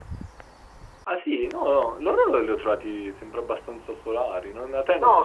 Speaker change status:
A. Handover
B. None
A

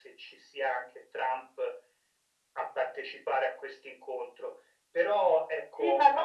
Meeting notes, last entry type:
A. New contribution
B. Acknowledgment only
A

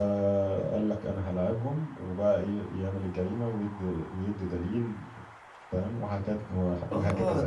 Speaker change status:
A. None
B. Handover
B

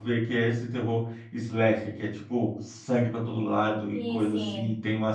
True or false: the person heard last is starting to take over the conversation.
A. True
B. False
B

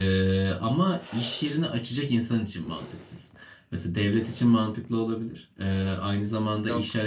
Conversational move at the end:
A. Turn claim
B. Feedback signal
B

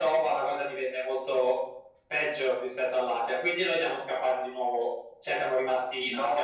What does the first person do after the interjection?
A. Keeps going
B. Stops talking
B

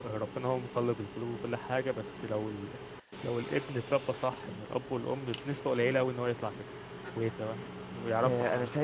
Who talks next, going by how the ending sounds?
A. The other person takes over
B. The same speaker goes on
A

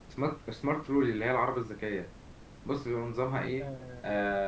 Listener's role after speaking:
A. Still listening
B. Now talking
B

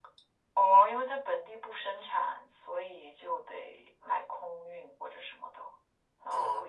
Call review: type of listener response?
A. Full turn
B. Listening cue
A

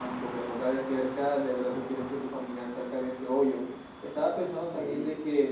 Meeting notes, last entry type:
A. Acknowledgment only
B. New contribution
A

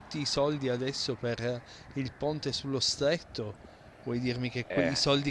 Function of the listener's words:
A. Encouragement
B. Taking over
A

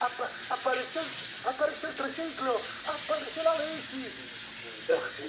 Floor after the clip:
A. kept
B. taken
A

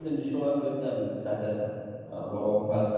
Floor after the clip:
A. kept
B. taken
A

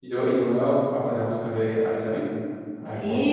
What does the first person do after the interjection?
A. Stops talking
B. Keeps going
A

